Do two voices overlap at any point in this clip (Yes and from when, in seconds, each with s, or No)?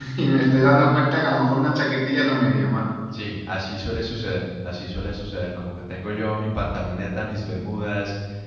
No